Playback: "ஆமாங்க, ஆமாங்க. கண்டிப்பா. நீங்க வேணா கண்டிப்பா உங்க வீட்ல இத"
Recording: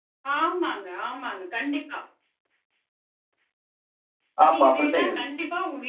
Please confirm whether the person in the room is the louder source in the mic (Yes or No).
Yes